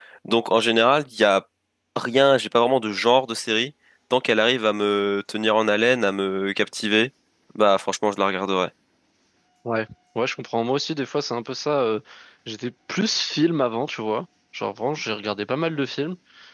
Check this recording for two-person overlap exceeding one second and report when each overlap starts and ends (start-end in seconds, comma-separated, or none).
none